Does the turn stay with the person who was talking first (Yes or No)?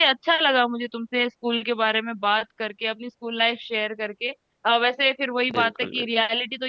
Yes